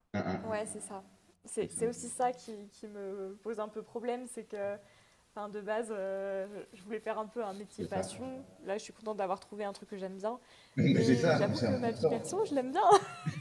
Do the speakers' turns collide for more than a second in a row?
Yes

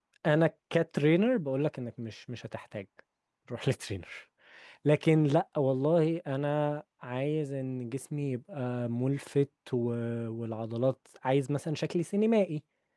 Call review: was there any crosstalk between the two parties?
No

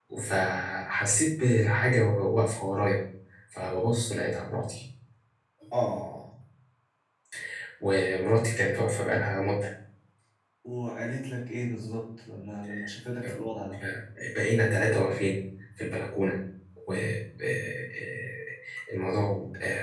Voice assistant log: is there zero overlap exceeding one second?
Yes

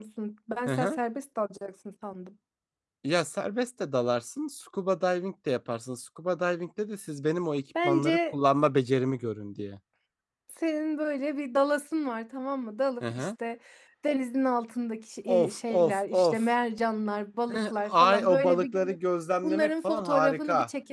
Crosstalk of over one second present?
Yes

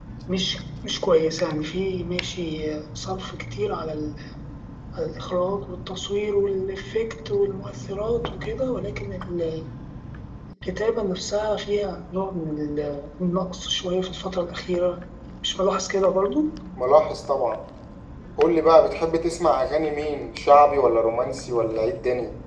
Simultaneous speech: No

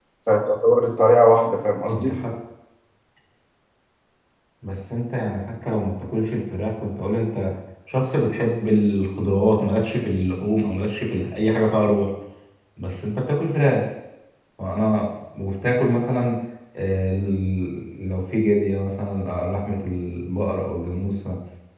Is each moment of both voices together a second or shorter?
Yes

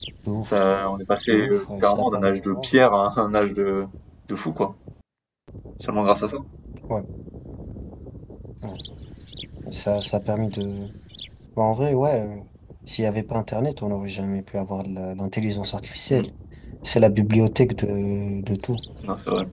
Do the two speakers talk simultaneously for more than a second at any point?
Yes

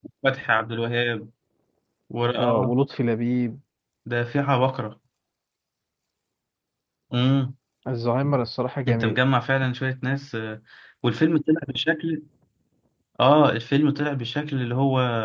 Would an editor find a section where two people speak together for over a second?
No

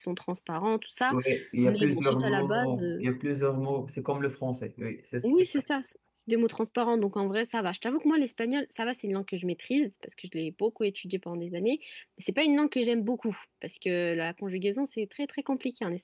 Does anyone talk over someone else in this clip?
Yes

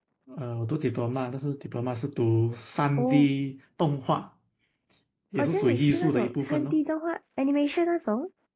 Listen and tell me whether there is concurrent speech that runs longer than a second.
Yes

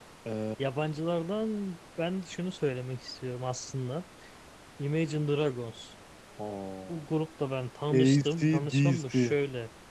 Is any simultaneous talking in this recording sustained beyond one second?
Yes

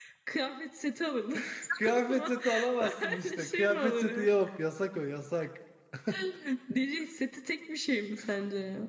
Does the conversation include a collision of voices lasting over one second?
Yes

